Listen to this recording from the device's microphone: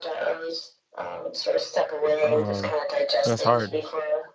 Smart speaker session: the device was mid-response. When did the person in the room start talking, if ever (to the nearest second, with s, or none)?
2 s